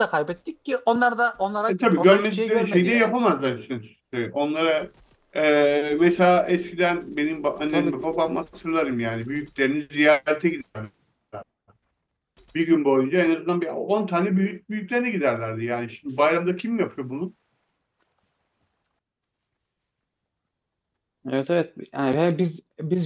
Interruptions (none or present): present